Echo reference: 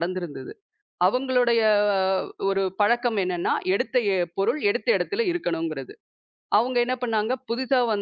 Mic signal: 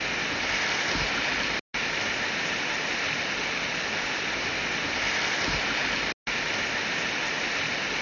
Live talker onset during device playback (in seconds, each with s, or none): none